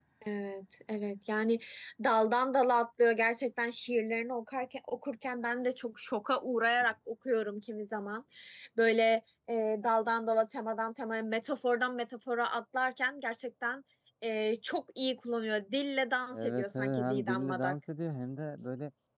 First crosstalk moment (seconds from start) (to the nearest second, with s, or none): 16 s